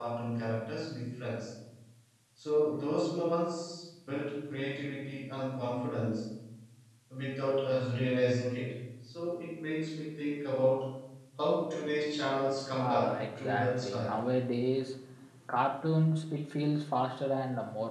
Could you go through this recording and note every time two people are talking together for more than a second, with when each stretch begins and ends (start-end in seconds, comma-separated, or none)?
12.7-14.2